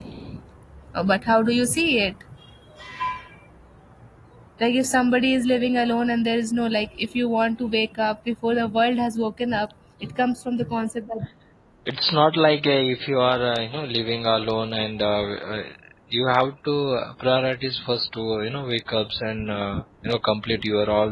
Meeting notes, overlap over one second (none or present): none